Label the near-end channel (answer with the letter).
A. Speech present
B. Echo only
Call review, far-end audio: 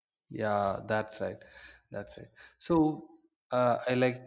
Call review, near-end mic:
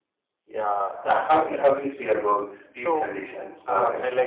A